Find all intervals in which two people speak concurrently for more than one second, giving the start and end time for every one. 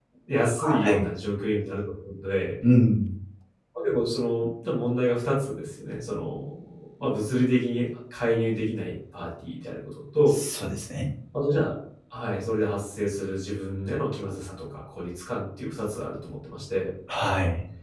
none

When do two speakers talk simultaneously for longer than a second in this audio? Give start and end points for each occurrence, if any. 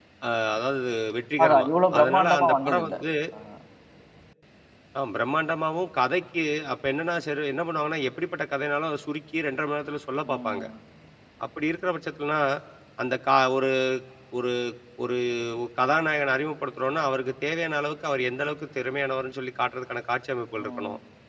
1.4-2.9

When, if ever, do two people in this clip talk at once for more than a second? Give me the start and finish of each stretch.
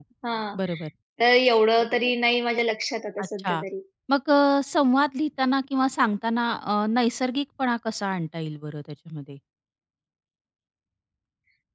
none

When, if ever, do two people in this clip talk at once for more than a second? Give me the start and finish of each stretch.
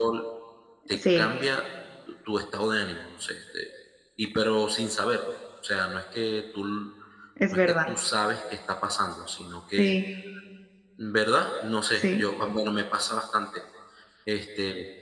none

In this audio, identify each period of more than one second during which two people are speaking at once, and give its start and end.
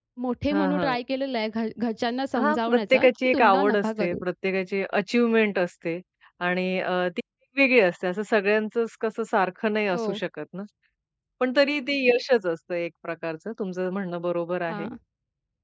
2.4-4.2

